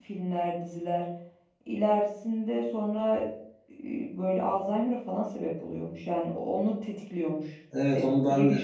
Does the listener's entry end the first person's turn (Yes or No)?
Yes